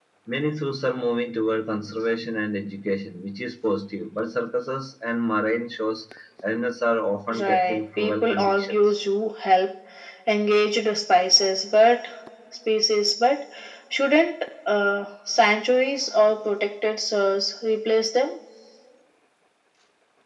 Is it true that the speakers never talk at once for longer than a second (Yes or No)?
No